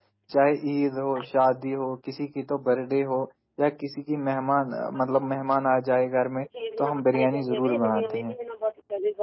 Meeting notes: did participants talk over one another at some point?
Yes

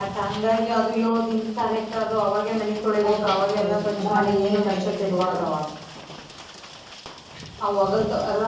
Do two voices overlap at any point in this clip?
Yes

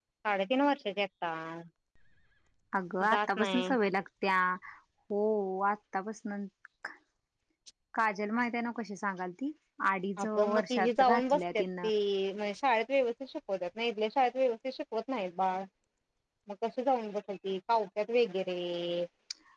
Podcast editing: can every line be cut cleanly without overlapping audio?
No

